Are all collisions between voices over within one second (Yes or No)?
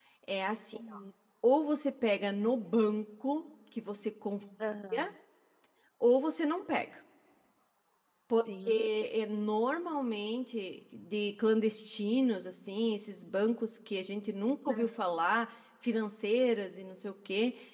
Yes